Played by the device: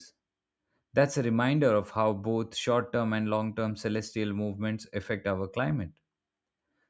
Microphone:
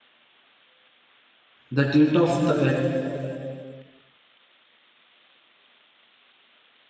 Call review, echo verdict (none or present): none